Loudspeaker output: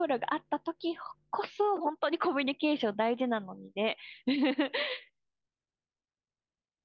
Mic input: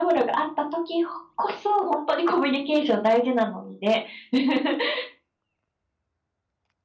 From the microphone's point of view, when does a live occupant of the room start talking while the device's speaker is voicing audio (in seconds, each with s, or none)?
none